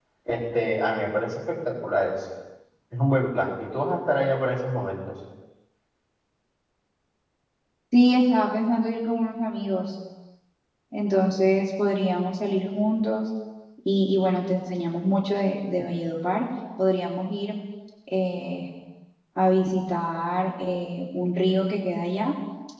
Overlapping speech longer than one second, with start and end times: none

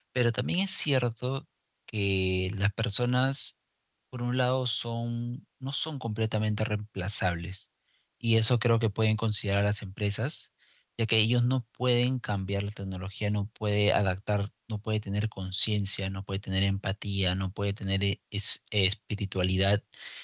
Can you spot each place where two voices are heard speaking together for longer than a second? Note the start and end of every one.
none

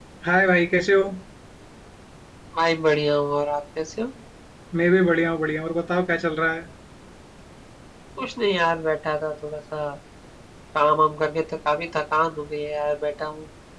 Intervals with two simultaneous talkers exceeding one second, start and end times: none

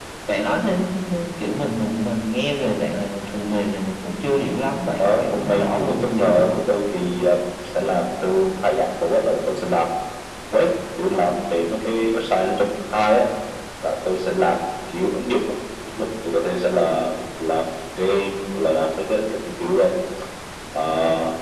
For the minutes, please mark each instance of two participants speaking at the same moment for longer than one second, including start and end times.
5.0-6.6

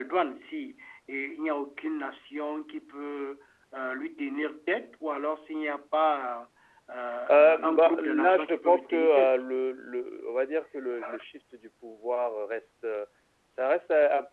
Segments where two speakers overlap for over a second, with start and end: 7.3-9.4

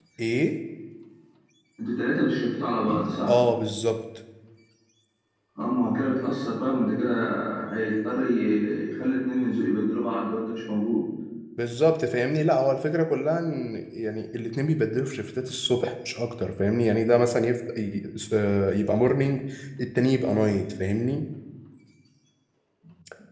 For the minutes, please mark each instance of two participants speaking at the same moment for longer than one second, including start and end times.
none

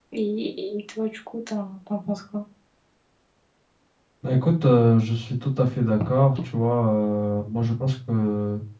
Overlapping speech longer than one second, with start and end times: none

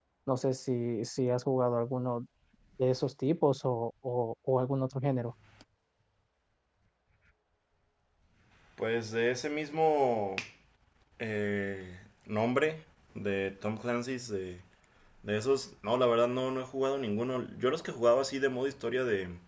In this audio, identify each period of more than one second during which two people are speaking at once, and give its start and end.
none

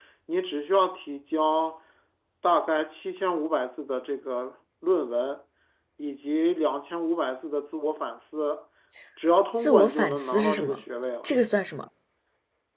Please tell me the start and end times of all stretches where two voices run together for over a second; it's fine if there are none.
9.6-10.8

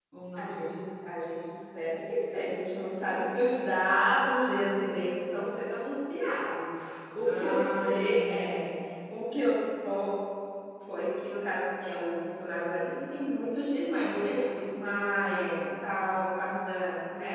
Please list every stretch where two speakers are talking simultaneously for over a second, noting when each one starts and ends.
7.2-8.7

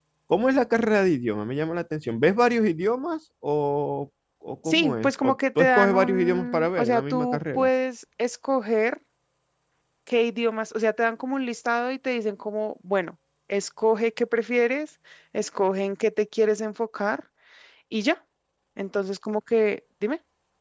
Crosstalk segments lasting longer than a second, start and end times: 4.7-7.7

